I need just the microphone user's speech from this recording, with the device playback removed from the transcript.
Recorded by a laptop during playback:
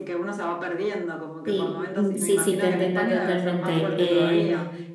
Sí, mm, sí, sí, te entiendo totalmente. Eh,

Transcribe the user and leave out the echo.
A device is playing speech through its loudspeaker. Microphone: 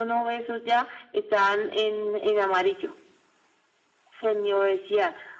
none

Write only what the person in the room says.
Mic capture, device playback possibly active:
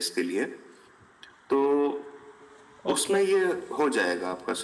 ओके

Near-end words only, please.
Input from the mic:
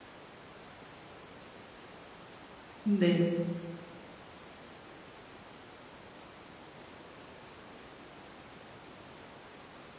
네.

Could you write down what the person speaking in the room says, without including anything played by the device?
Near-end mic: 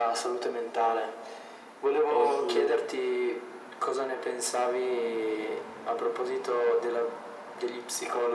o su,

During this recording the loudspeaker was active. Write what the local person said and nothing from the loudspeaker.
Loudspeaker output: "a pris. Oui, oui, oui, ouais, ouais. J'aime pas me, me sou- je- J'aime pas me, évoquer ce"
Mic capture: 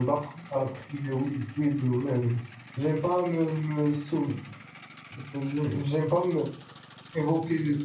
none

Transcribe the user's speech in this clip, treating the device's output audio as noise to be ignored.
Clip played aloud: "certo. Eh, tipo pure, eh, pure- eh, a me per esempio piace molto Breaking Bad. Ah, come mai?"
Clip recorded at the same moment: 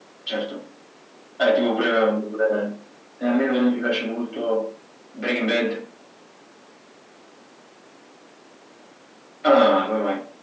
none

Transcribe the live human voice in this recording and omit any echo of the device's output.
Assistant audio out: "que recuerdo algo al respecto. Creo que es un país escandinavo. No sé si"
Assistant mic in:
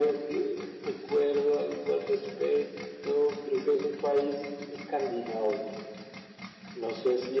none

